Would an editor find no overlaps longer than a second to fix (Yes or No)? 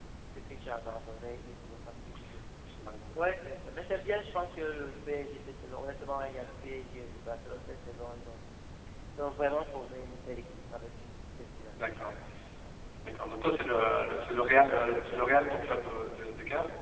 No